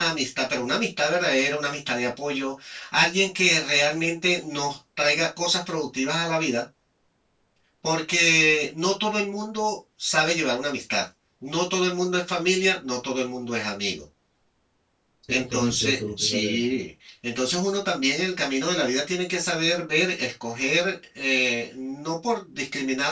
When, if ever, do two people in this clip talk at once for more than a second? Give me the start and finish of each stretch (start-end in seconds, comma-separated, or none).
15.3-16.8